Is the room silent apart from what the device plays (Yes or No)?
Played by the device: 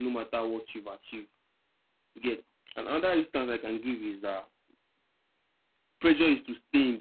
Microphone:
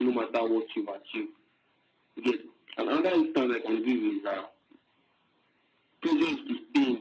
Yes